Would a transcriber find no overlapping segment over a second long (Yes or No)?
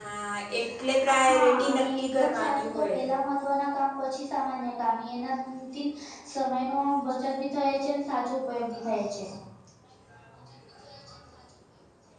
No